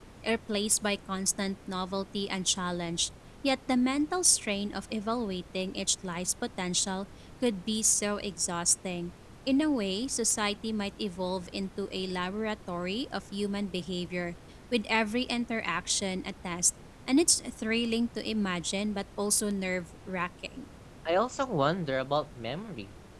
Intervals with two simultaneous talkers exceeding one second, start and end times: none

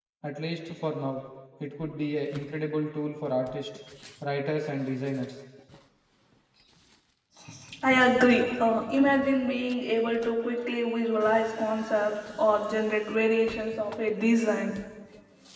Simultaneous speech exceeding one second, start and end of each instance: none

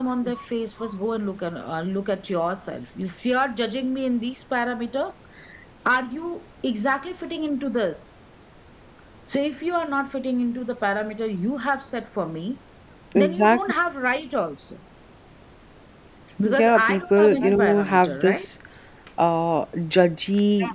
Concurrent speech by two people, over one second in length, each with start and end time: 16.4-18.4

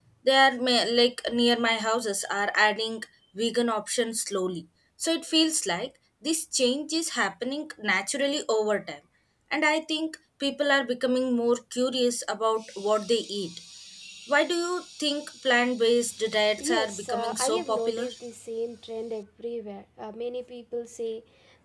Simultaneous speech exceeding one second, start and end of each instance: 16.6-18.1

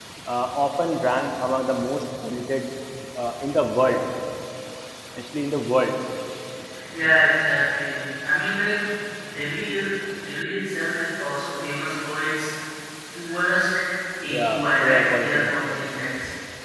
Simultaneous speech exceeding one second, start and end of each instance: 14.3-15.7

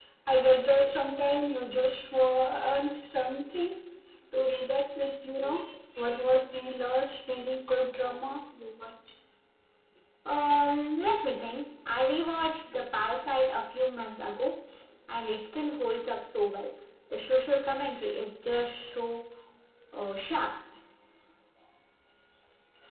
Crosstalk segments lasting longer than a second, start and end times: none

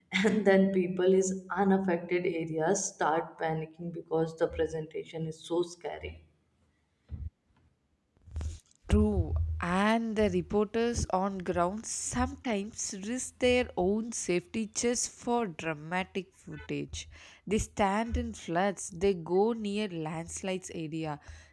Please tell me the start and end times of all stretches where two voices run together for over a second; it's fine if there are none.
none

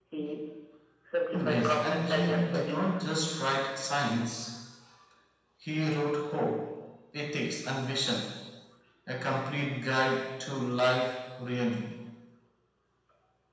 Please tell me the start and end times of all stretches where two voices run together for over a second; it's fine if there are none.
1.3-2.9

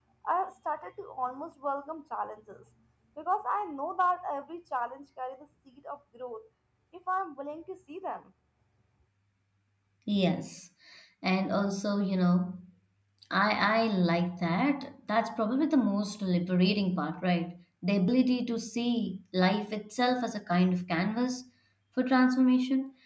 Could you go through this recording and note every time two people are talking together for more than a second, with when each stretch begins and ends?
none

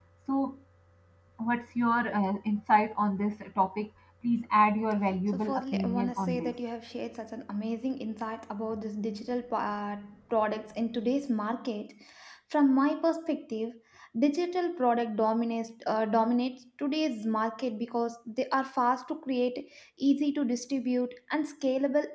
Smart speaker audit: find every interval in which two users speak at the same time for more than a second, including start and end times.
5.3-6.5

